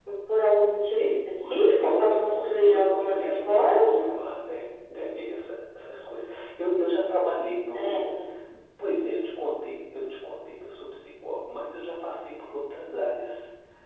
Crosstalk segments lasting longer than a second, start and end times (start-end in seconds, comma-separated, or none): 0.9-4.0